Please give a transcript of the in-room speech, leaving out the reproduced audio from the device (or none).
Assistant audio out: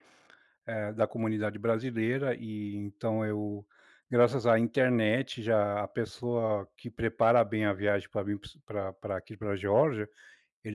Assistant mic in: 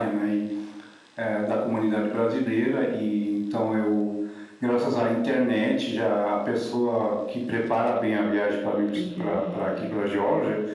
Uhum.